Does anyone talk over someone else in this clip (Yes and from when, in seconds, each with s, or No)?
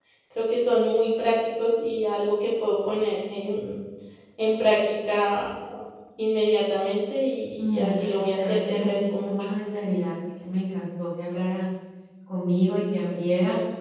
Yes, from 7.6 s